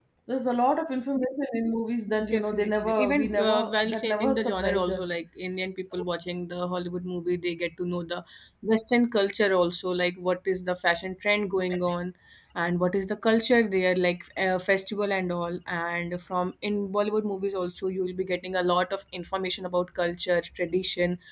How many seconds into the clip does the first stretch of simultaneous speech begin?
2 s

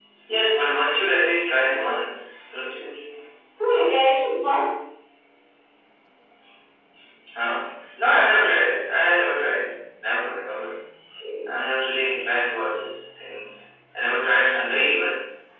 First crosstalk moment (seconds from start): none

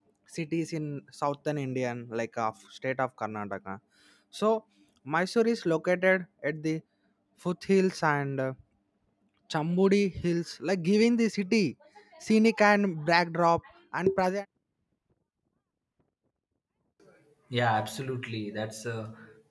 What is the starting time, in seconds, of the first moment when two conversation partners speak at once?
none

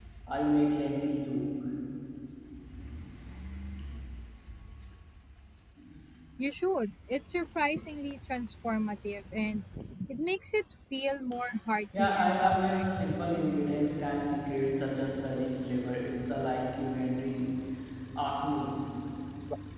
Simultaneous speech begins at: 12 s

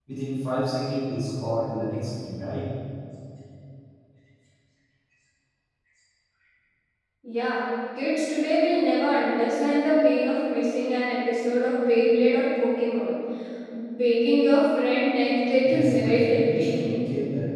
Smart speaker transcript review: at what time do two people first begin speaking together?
16 s

